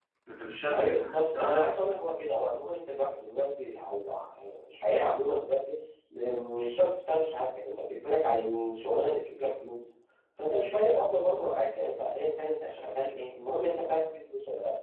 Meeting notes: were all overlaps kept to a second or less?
No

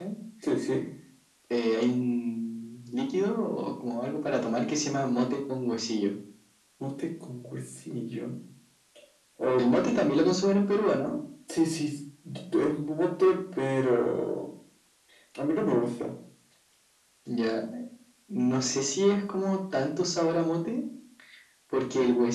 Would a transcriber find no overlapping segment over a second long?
Yes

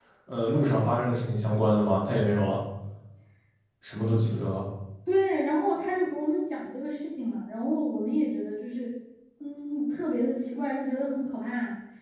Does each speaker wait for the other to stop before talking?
Yes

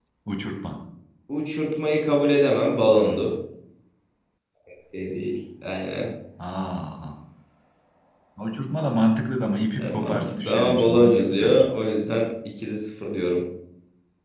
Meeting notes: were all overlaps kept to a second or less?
No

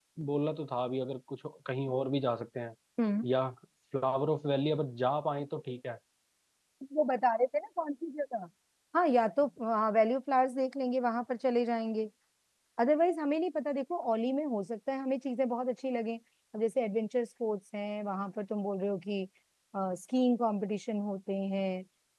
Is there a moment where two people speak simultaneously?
No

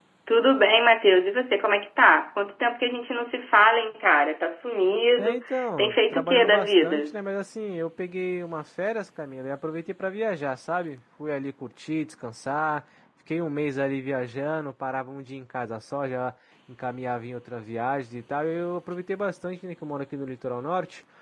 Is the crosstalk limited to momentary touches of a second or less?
No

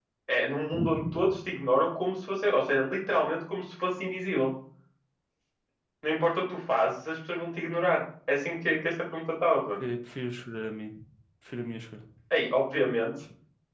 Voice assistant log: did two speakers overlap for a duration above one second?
No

